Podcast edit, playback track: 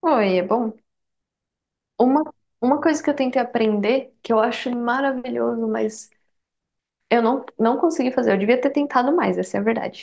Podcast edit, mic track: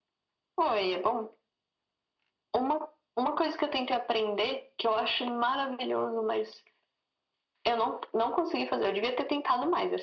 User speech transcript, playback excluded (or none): none